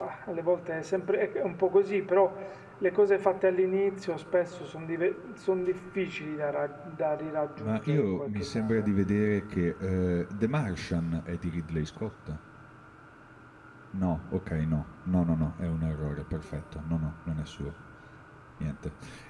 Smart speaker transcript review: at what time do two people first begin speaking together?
7.6 s

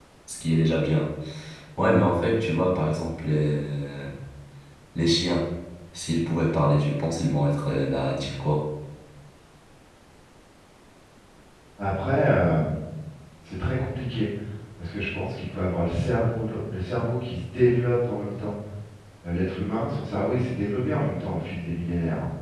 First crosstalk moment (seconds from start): none

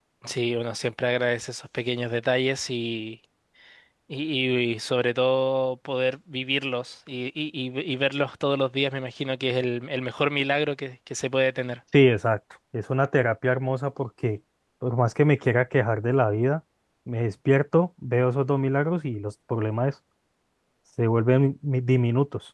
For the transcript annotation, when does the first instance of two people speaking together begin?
none

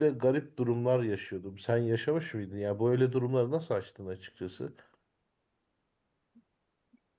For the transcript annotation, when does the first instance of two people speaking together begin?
none

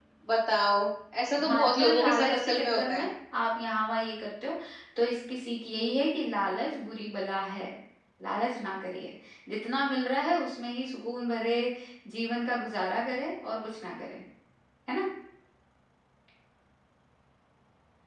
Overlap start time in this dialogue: 1.4 s

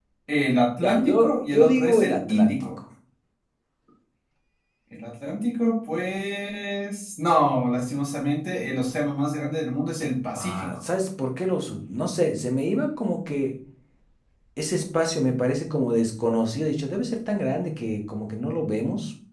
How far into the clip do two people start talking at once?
0.8 s

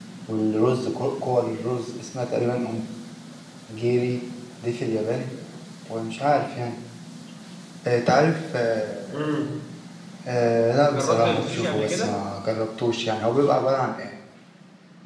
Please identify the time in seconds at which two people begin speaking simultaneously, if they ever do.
10.9 s

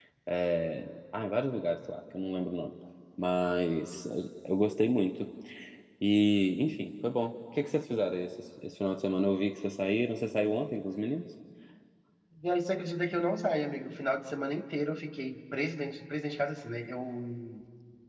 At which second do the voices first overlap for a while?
none

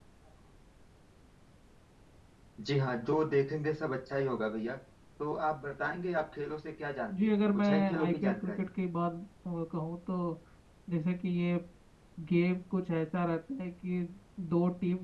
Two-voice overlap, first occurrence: 7.1 s

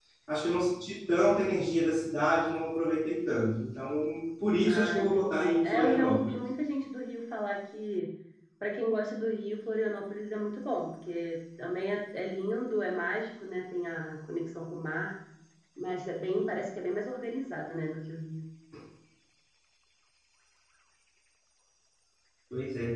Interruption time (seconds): 4.7 s

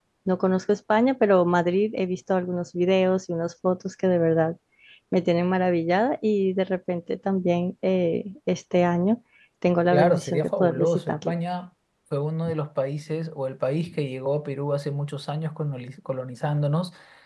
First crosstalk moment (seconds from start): 9.9 s

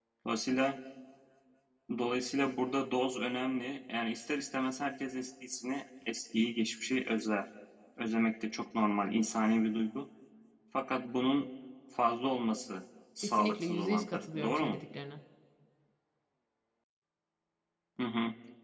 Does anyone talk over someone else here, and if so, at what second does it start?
13.2 s

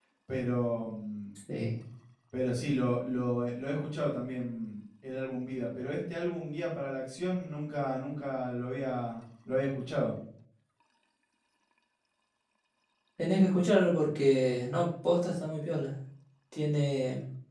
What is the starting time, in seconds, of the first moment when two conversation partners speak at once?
none

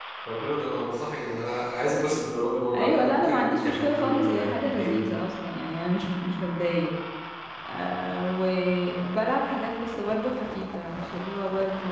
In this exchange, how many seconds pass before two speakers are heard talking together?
2.7 s

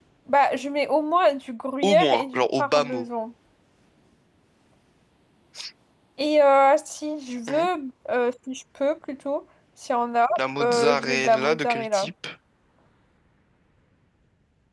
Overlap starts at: 1.8 s

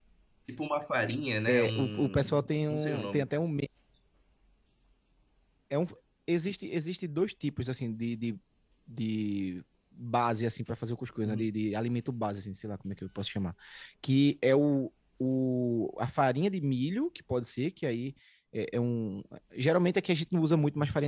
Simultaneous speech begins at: 1.5 s

